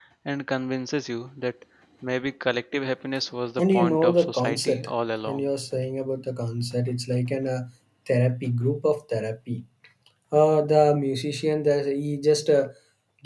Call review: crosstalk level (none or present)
present